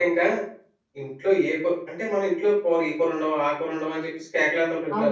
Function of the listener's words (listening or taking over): taking over